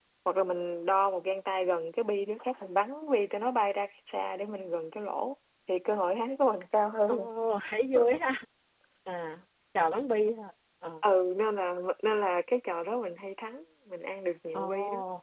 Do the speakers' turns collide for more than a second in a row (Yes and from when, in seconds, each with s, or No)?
No